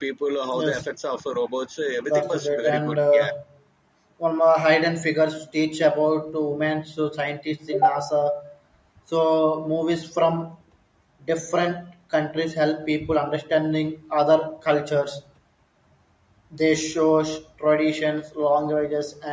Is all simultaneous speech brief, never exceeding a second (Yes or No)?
No